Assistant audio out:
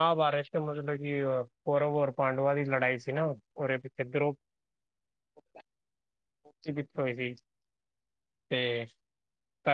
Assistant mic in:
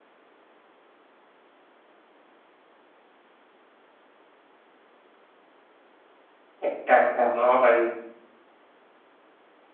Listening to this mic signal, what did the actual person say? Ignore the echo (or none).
ਅੱਛਾ ਅੱਛਾ ਹਾਂ ਭਾਈ।